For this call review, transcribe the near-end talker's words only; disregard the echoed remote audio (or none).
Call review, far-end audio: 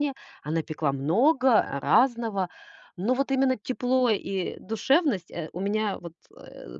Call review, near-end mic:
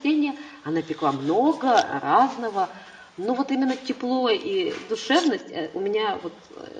none